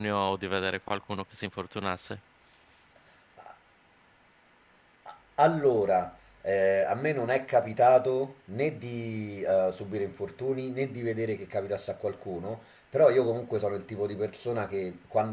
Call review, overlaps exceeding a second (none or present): none